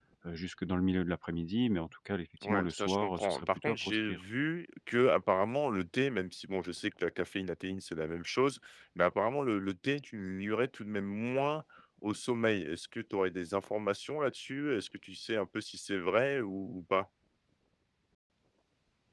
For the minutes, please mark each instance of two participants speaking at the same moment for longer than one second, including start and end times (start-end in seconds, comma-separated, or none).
2.4-4.2